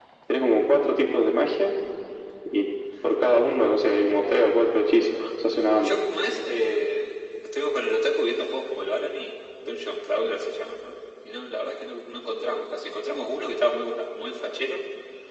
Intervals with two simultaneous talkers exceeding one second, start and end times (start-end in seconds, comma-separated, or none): none